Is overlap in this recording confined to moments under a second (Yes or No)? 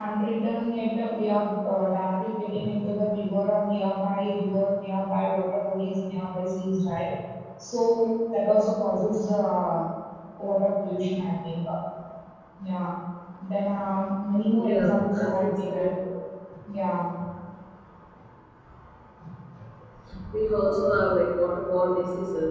No